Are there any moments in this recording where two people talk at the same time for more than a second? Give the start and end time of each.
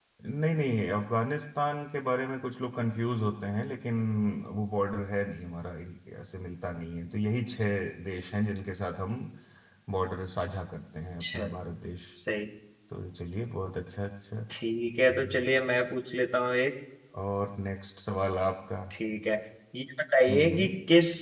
none

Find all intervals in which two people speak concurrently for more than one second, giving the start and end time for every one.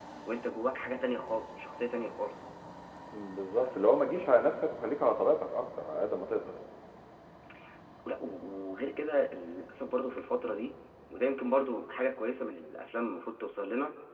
none

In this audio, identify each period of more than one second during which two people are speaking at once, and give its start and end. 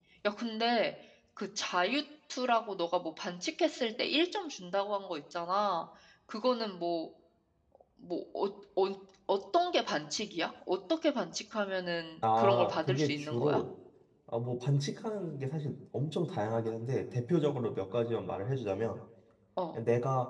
12.4-13.6

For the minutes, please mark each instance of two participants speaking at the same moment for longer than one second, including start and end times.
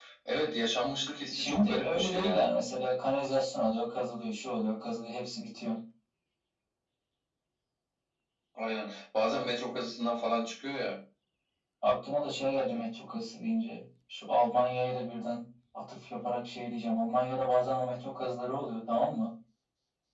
1.3-2.5

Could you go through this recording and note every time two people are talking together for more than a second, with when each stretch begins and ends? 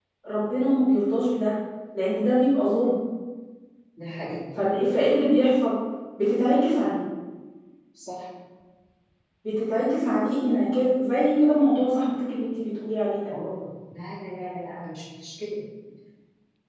none

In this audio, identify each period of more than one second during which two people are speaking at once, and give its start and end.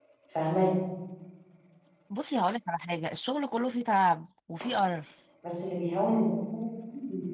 none

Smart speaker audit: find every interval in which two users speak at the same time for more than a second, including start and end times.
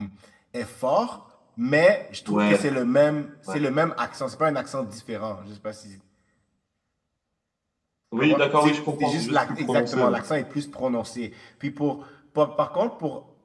8.2-10.1

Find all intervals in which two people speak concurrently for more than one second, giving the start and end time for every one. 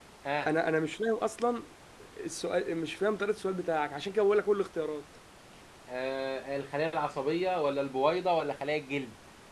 none

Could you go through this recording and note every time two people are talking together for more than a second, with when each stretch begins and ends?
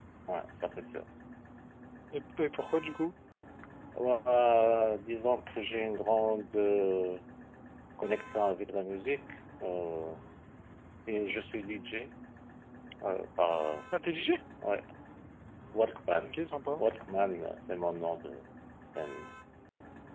none

